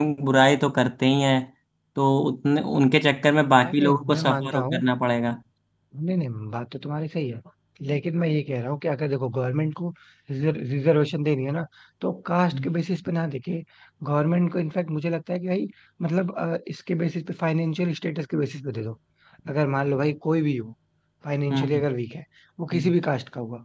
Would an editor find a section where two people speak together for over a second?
Yes, from 3.6 s

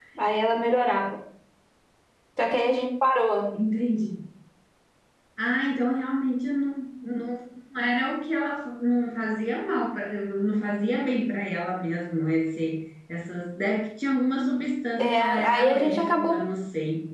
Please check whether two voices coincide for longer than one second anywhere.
Yes, from 15.0 s

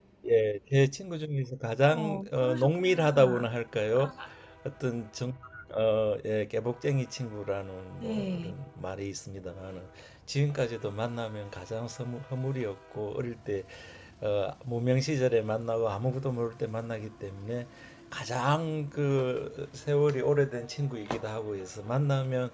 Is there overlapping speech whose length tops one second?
Yes, from 1.8 s

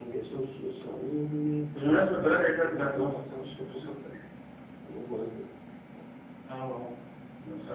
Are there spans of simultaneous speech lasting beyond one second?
Yes, from 1.8 s

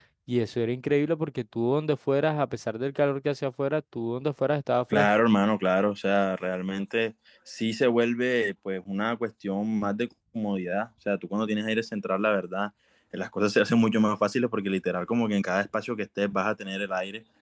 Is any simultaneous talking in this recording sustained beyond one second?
No

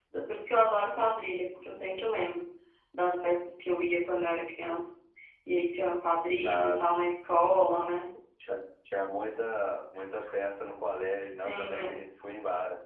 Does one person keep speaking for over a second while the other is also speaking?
No

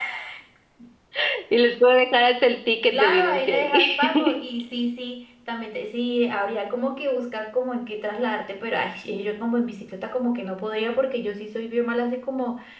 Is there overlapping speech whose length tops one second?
Yes, from 2.9 s

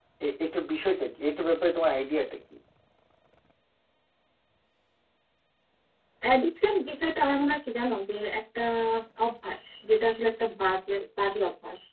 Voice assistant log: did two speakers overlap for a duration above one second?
No

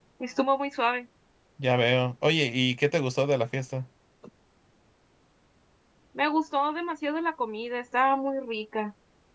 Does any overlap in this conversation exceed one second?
No

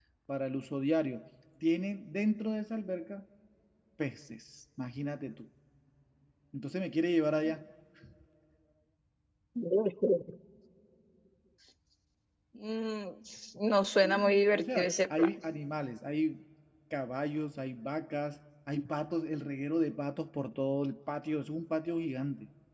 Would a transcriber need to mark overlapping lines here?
Yes, from 14.0 s

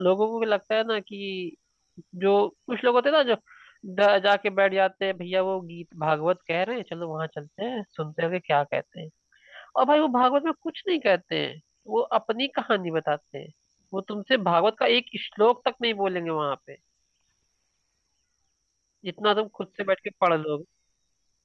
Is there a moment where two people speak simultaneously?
No

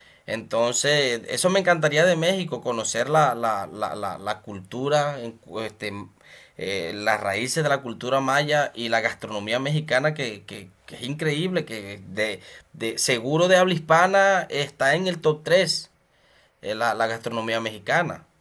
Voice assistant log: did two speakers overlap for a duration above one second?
No

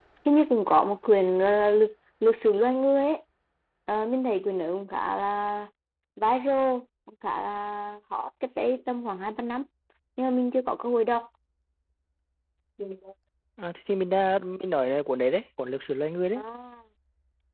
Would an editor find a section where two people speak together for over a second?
No

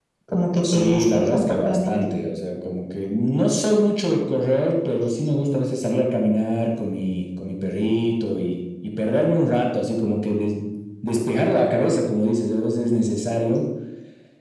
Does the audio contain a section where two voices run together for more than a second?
Yes, from 0.6 s

